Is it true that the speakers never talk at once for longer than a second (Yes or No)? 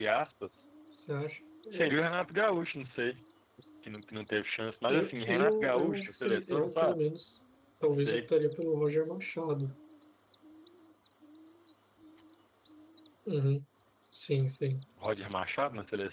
No